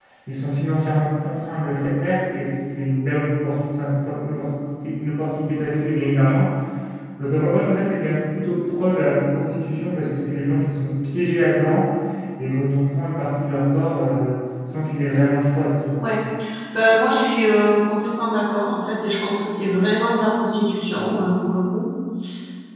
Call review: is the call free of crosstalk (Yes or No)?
Yes